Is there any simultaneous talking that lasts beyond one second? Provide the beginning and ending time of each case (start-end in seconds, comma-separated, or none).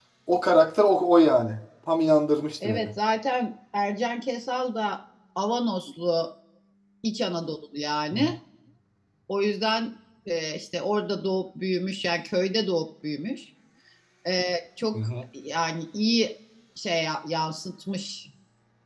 none